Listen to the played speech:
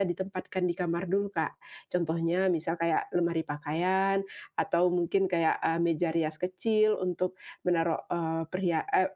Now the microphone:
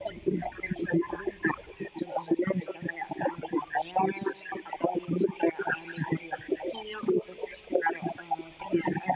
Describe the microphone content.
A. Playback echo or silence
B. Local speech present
A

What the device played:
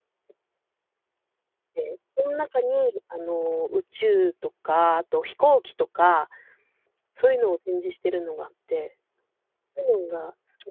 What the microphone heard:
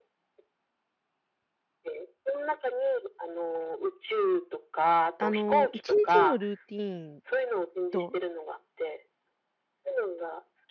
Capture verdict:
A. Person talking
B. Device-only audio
A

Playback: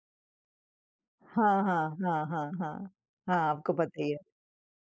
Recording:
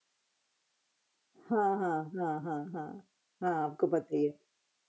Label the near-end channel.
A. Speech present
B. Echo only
B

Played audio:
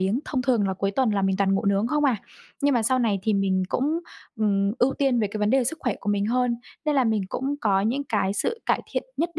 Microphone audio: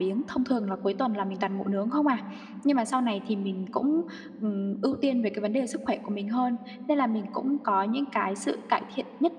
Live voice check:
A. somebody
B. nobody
B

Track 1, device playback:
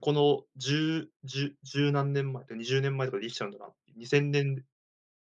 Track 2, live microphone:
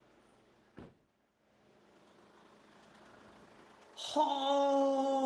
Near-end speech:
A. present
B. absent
A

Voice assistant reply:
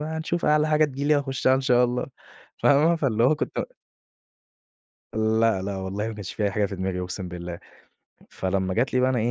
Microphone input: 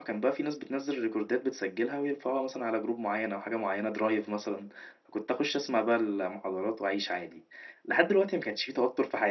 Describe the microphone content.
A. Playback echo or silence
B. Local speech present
B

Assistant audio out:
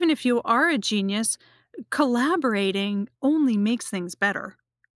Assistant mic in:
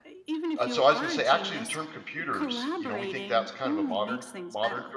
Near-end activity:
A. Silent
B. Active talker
B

